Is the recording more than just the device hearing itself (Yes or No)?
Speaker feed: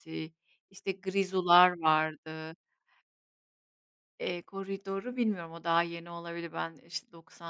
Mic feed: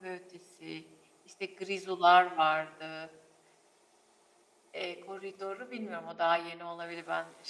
No